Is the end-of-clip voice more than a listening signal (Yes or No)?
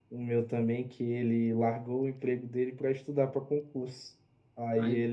No